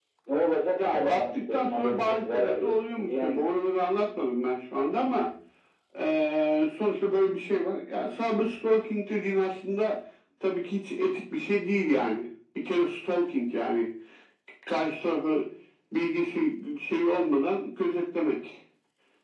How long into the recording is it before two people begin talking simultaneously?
0.9 s

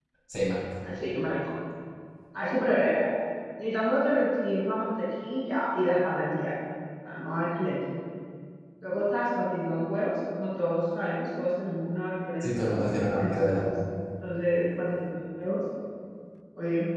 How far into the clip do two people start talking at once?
12.4 s

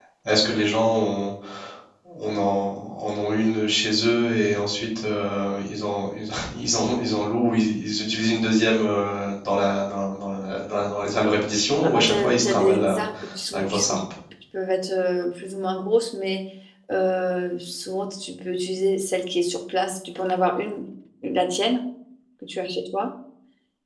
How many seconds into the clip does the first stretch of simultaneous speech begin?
11.8 s

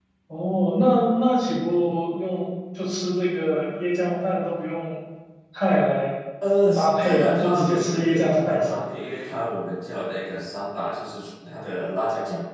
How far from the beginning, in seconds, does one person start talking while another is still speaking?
6.8 s

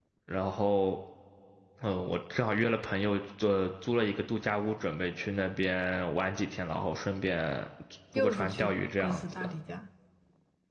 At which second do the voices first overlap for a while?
8.2 s

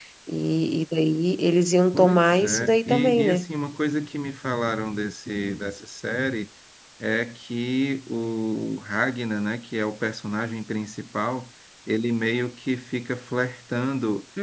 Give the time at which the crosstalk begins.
1.9 s

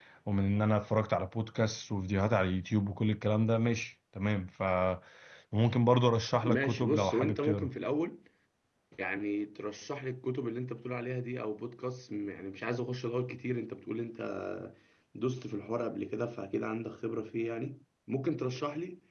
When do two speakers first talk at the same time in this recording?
6.4 s

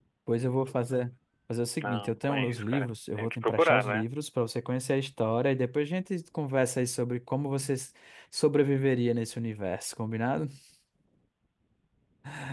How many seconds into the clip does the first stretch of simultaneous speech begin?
1.8 s

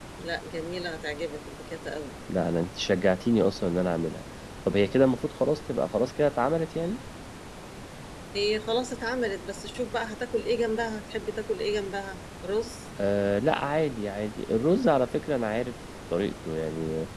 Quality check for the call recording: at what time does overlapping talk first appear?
none

